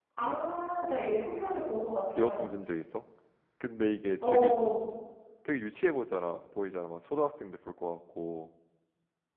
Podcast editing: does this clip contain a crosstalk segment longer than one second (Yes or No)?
No